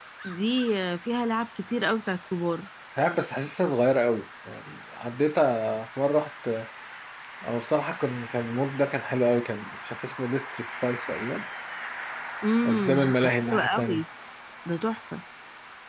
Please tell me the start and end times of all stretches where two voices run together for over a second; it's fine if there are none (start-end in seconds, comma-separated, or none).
12.7-14.0